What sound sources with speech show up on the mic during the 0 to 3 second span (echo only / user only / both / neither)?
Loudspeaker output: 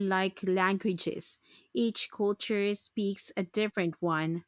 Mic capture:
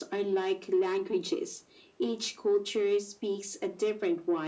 echo only